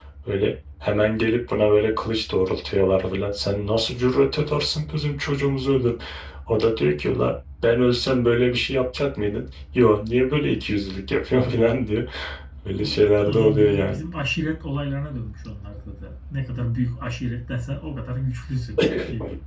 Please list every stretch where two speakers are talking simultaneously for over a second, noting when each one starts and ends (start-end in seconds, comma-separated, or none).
12.8-14.0